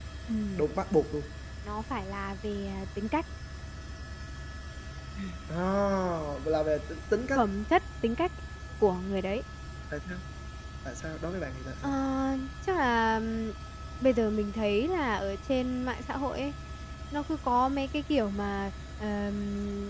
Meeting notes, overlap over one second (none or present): none